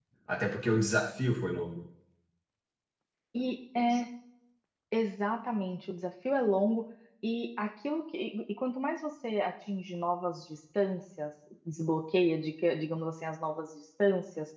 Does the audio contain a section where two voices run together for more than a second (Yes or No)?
No